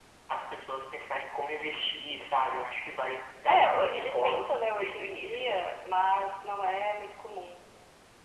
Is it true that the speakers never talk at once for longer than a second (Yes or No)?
No